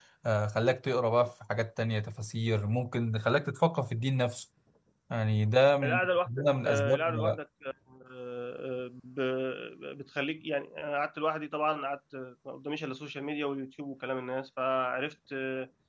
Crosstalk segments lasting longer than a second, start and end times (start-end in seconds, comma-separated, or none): 5.8-7.2